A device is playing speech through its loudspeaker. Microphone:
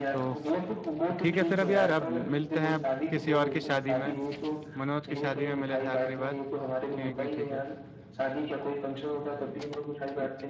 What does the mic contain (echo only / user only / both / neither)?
both